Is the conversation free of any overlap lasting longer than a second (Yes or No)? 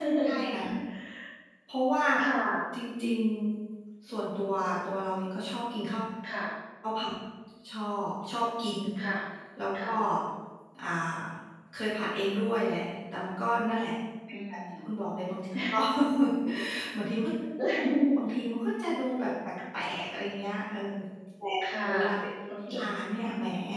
Yes